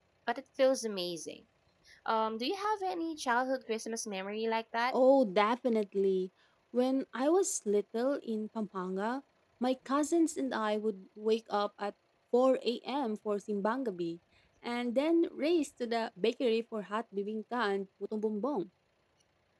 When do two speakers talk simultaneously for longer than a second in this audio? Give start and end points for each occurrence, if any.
none

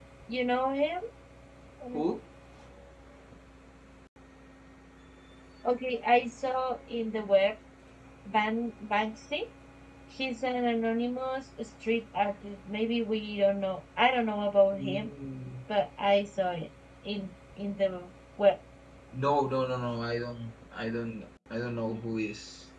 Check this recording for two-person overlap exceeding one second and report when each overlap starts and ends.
none

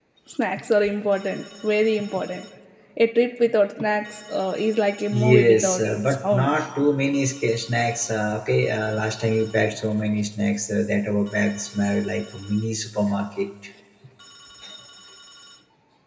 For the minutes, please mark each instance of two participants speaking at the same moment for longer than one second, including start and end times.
5.1-6.5

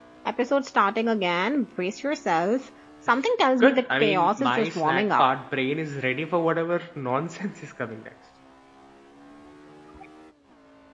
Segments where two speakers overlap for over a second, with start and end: 3.6-5.2

